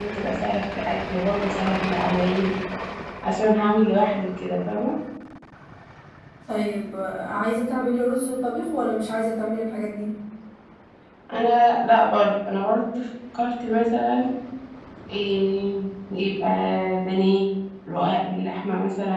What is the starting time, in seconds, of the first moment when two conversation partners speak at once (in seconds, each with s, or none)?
none